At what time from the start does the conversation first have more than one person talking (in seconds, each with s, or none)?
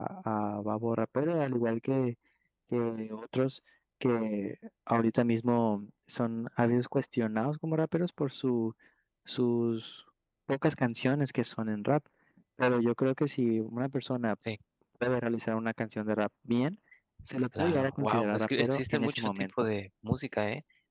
17.6 s